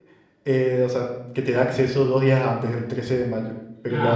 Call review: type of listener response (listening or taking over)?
taking over